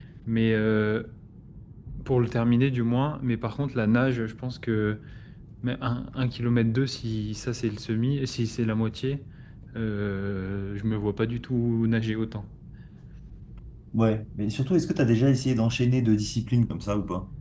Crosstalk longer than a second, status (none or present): none